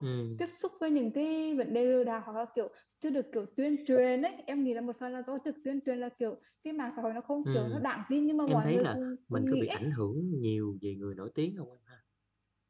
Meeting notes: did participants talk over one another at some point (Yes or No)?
Yes